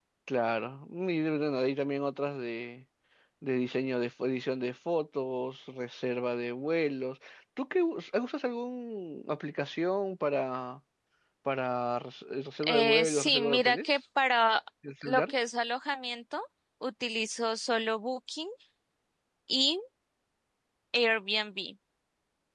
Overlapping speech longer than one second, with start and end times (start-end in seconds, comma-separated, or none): 12.6-13.9